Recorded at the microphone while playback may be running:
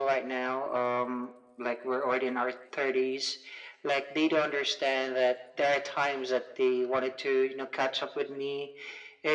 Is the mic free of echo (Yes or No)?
No